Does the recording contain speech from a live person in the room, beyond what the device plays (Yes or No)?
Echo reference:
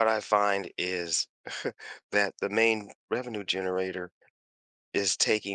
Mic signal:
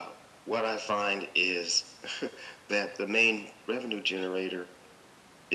No